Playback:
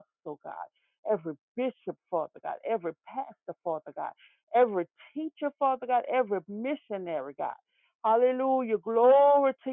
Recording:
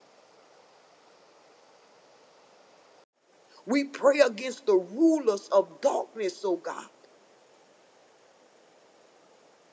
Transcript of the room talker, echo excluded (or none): We pray against the rulers of darkness, oh God.